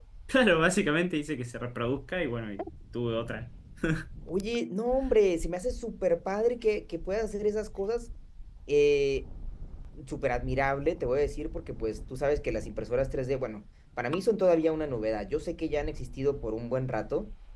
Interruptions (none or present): none